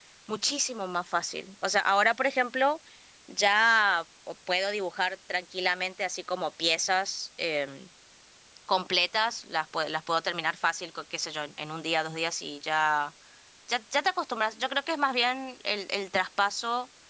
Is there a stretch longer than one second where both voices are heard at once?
No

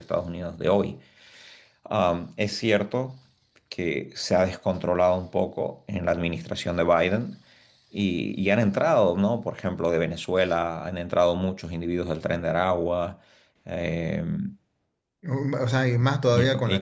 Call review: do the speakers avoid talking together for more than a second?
Yes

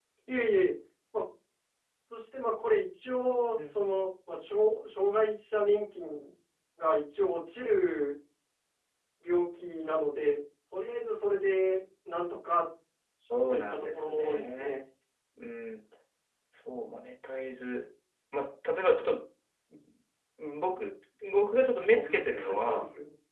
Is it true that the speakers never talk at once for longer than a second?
No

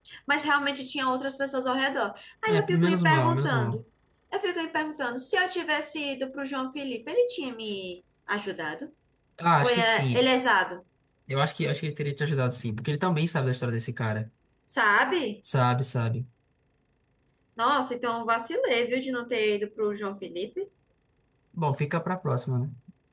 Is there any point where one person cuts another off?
Yes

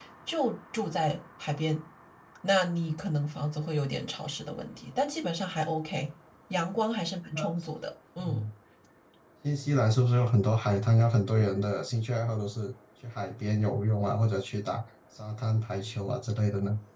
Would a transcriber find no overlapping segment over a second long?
Yes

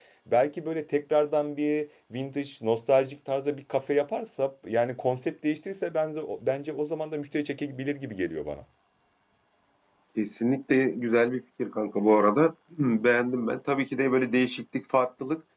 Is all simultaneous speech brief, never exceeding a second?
Yes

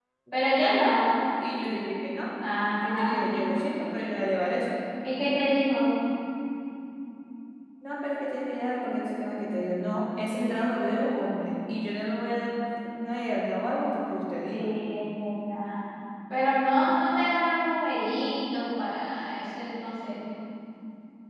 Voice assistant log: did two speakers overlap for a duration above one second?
No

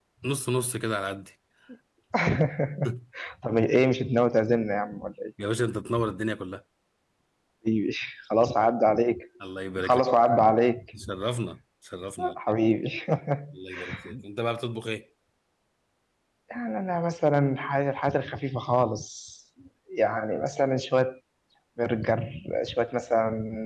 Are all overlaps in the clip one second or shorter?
Yes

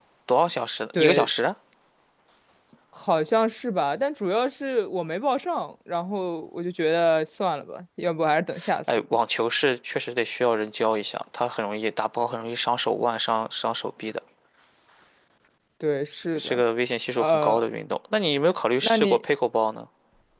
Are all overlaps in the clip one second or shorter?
Yes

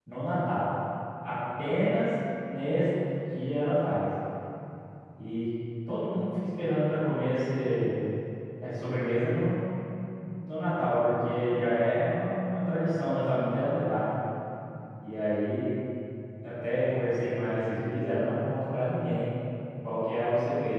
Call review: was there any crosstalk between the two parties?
No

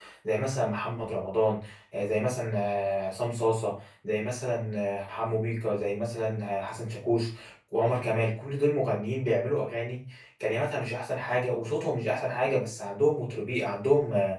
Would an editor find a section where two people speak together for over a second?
No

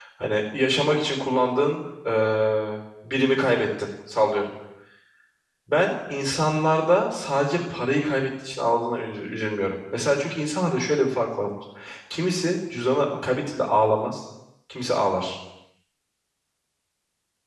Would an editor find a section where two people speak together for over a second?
No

